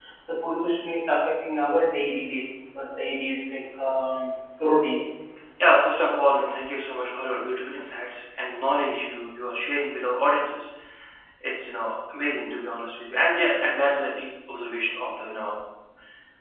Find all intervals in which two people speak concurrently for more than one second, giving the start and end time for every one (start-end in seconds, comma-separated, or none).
none